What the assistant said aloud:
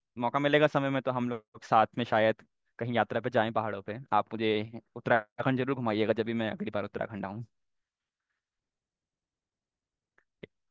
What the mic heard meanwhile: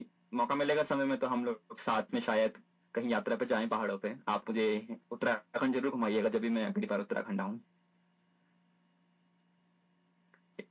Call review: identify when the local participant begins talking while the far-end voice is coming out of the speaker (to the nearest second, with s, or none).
none